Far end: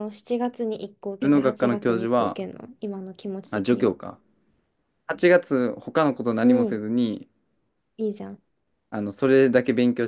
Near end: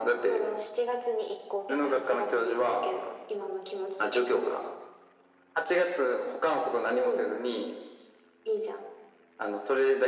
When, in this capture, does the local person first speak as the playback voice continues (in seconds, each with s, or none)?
none